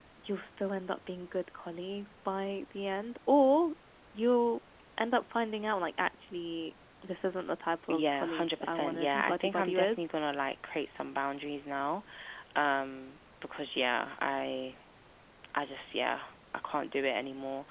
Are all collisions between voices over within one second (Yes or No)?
No